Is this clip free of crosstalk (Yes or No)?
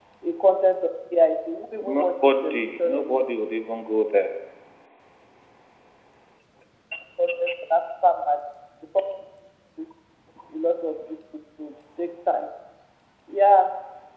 No